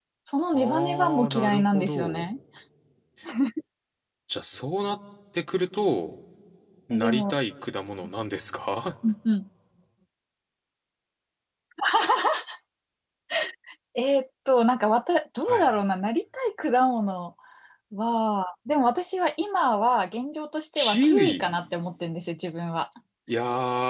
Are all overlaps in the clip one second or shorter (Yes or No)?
No